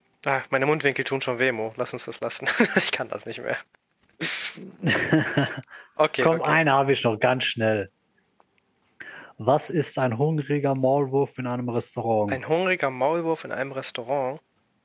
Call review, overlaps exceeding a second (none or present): none